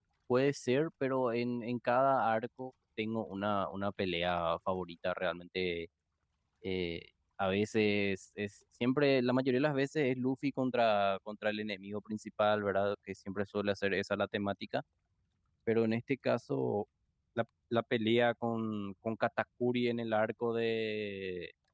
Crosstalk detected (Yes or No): No